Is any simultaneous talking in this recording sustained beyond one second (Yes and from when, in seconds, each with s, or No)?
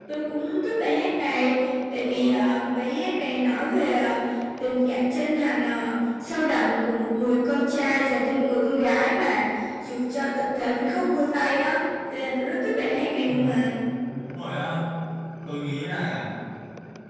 No